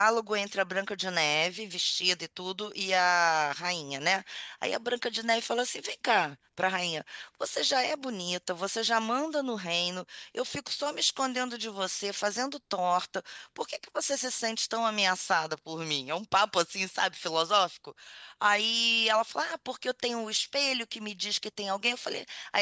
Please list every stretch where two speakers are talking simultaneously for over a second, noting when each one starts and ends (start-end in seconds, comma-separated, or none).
none